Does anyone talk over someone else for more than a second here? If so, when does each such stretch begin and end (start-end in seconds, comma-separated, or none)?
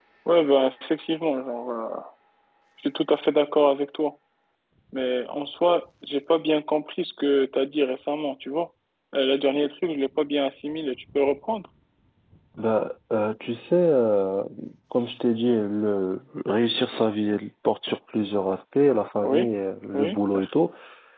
none